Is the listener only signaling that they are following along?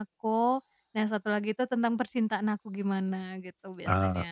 No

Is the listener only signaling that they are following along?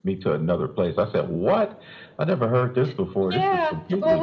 No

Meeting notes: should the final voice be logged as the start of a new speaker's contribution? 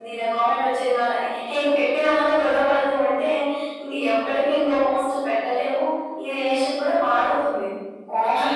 No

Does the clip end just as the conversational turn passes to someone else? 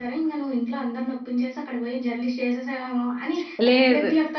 No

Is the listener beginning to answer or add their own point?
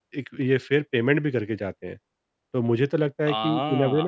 No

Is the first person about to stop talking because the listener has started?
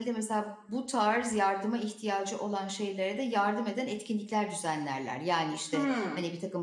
No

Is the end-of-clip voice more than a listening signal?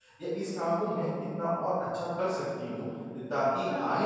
No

